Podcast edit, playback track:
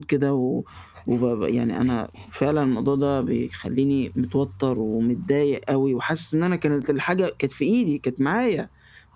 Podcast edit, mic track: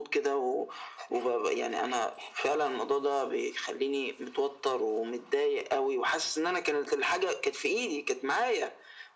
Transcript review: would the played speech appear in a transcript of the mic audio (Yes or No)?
Yes